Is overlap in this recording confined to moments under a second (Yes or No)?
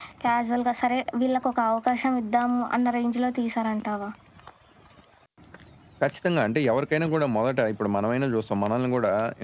Yes